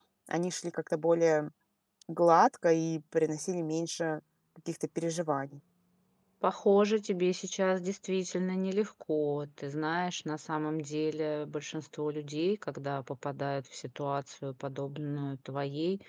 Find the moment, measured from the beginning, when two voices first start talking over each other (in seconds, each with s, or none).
none